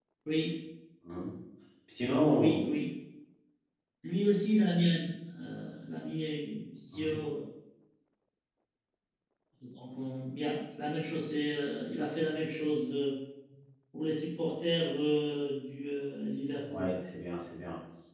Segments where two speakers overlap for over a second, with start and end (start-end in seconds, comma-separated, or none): none